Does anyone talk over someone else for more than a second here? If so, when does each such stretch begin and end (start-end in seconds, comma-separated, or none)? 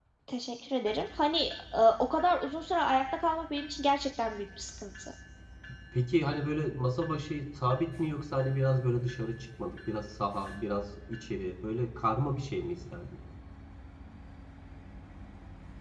none